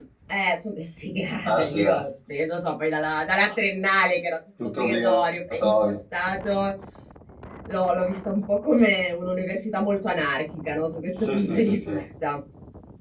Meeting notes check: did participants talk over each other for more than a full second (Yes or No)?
Yes